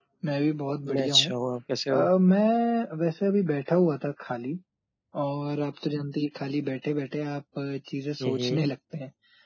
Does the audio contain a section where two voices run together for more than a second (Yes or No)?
No